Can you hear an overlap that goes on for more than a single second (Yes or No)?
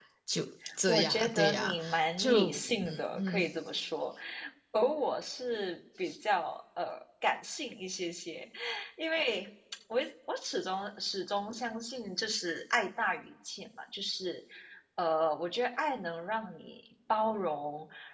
Yes